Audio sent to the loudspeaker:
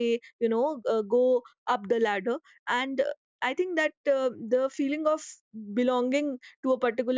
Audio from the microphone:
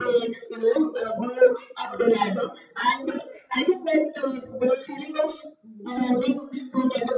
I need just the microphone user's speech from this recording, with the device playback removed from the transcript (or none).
none